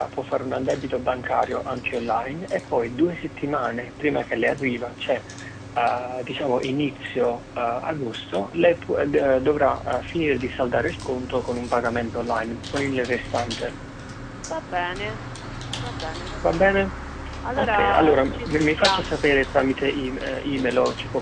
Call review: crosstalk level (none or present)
present